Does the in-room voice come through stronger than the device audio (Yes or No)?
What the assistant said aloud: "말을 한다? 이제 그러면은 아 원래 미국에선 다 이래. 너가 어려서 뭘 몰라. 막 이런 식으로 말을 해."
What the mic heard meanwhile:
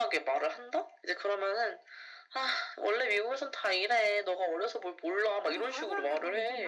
No